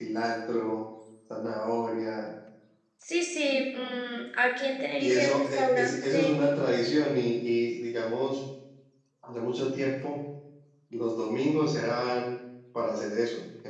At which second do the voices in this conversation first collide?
5.0 s

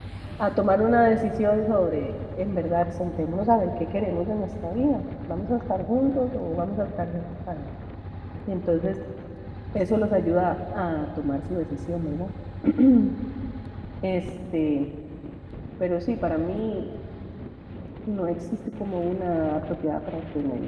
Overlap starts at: none

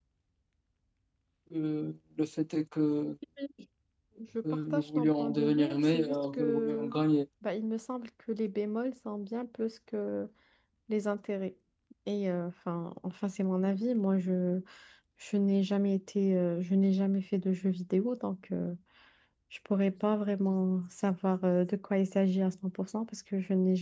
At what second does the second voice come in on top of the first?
4.7 s

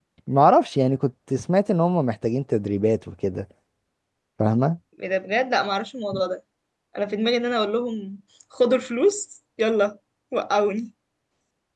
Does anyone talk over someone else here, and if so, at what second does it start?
none

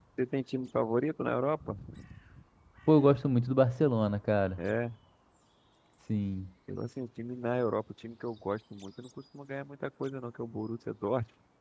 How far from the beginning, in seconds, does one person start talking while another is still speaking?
none

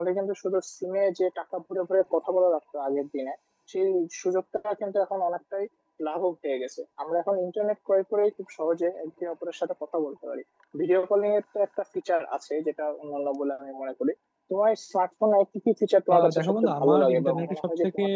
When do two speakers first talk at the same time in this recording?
16.1 s

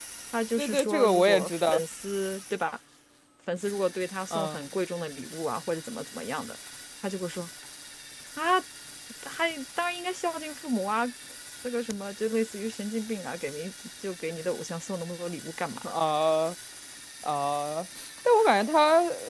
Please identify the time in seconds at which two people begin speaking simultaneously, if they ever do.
0.6 s

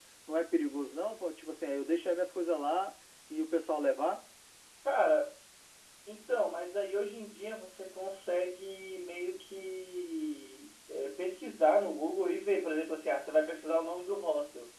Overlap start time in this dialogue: none

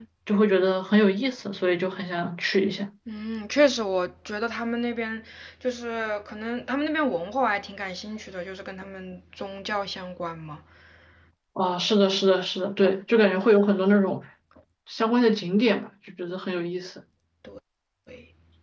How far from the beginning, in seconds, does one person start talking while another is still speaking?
none

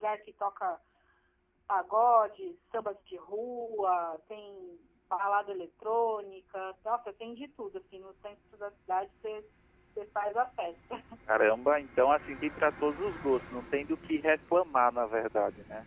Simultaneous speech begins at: none

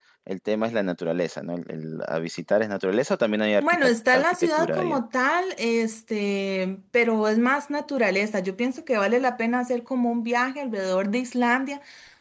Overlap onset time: 3.6 s

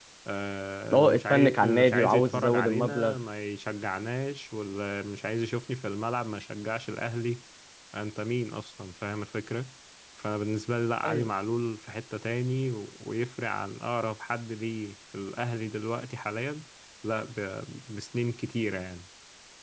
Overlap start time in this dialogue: 0.9 s

